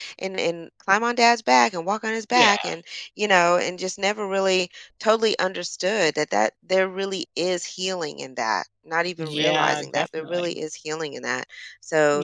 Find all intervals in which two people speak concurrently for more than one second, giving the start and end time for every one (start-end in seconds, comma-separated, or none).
9.2-10.5